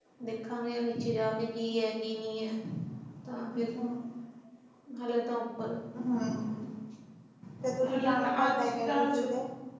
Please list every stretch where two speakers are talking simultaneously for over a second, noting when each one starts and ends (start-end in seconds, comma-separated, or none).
7.9-9.3